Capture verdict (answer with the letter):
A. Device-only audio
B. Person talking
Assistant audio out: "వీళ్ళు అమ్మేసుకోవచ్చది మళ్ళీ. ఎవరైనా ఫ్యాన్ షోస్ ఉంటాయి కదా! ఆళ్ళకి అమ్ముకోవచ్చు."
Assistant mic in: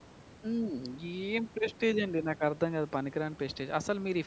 B